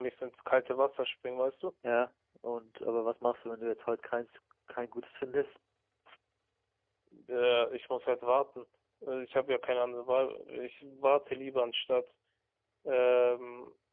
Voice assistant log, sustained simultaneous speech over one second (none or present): none